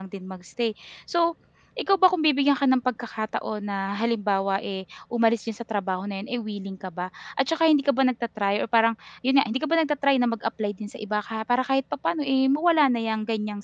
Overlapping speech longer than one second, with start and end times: none

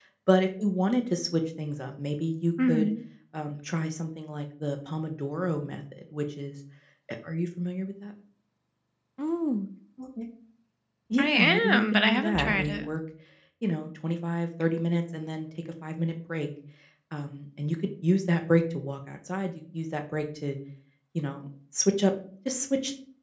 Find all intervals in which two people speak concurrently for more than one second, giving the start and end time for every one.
11.2-12.9

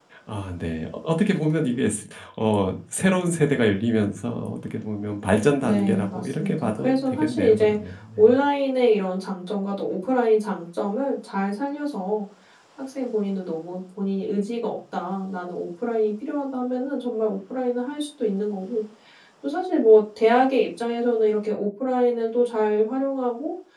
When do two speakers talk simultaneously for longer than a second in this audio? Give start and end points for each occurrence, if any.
5.6-7.8

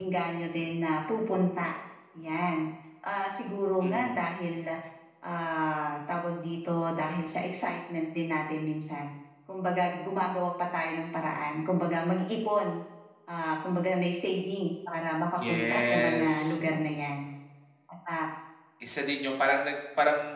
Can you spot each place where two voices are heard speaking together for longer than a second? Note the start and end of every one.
15.4-16.6

